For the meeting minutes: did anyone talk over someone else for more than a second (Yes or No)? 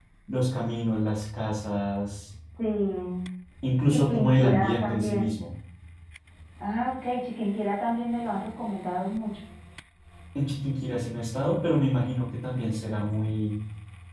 Yes